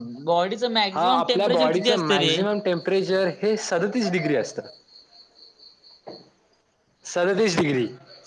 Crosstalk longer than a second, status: present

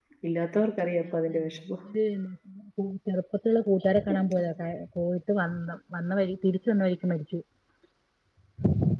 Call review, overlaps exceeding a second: none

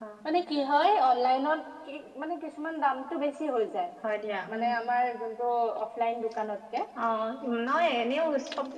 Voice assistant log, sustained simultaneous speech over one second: none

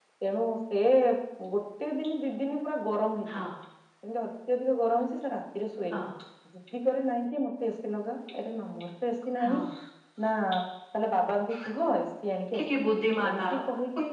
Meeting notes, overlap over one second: none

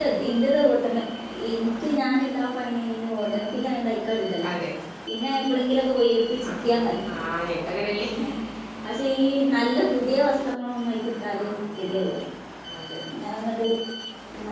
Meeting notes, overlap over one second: none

